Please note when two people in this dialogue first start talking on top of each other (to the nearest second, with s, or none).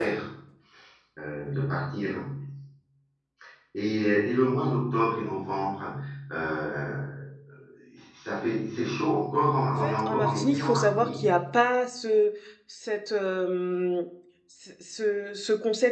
10 s